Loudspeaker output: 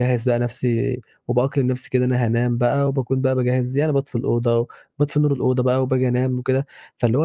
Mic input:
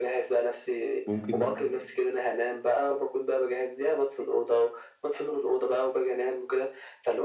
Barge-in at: 1 s

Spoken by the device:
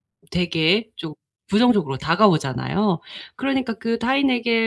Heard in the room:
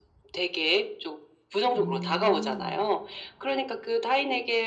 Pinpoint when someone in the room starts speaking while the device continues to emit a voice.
2 s

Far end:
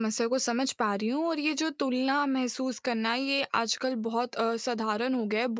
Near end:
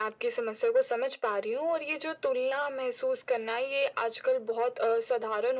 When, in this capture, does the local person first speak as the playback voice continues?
none

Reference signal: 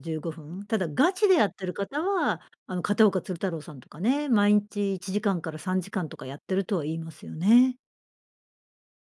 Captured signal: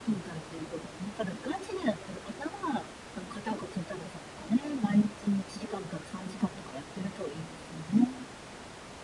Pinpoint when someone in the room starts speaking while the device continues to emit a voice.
none

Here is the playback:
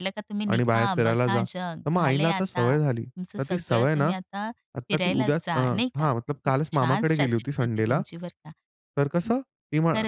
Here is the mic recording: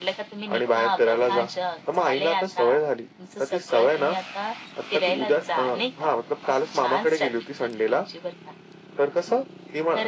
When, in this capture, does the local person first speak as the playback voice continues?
none

